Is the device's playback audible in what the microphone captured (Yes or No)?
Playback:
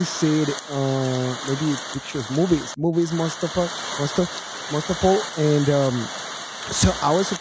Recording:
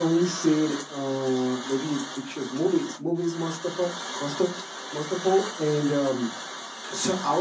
Yes